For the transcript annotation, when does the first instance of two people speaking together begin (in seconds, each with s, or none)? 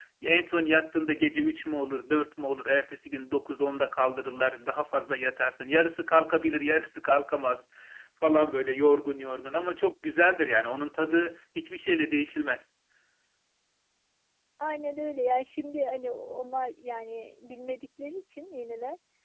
none